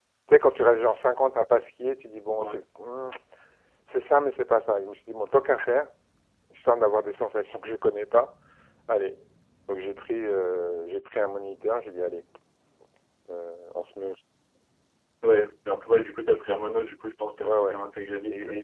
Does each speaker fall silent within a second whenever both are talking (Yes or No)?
Yes